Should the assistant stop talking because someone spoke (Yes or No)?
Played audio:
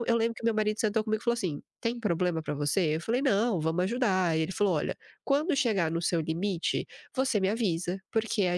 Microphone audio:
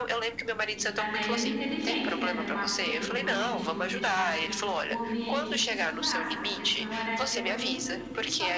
Yes